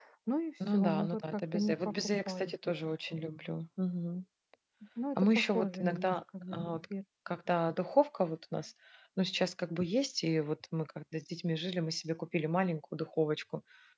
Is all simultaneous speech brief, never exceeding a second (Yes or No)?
No